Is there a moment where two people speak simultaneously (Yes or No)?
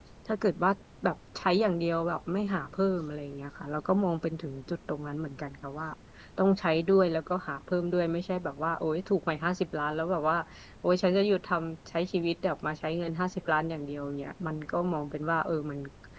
No